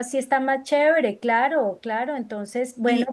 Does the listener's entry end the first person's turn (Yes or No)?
Yes